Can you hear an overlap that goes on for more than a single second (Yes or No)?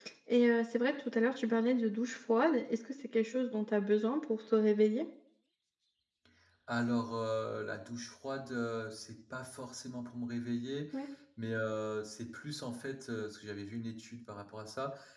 No